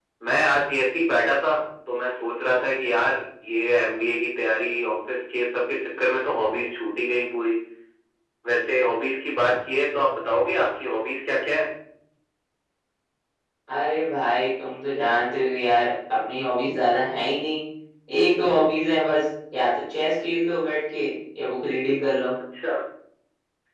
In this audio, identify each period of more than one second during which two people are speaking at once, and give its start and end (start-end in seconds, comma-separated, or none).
none